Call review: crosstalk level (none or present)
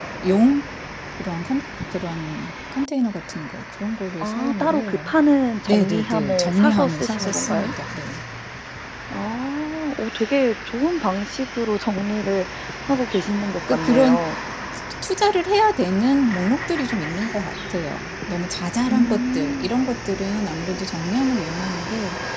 present